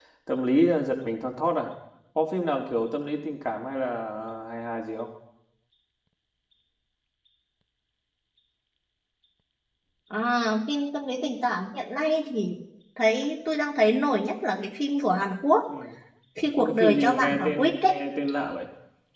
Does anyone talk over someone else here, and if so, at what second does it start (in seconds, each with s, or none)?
16.6 s